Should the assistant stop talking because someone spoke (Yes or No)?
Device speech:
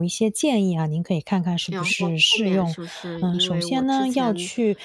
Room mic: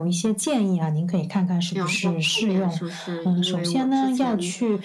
No